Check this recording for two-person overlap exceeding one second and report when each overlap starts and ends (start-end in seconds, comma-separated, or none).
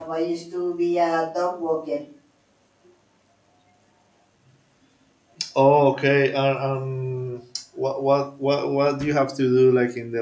none